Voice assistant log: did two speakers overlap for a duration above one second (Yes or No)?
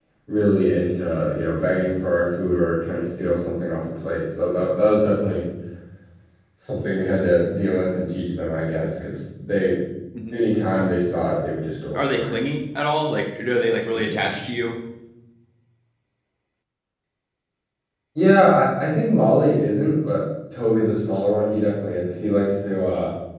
No